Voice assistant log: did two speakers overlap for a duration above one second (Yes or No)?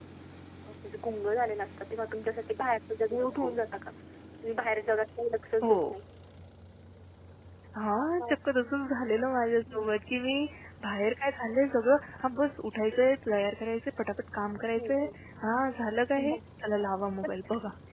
No